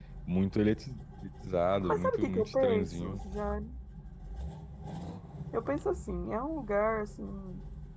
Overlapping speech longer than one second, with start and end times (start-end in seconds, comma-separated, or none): 1.8-3.2